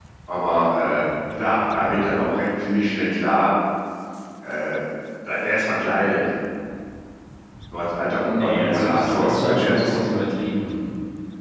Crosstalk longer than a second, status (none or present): present